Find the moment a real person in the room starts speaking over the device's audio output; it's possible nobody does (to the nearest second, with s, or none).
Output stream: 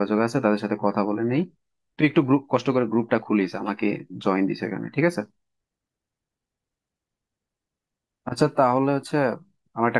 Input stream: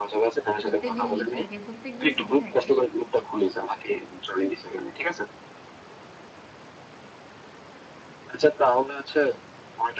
1 s